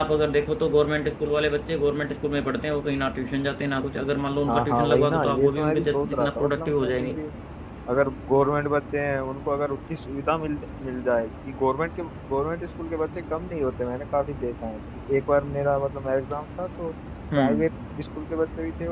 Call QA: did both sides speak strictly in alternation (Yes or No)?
No